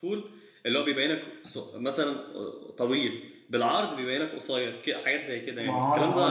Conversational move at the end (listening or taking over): taking over